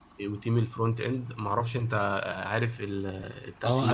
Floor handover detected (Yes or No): Yes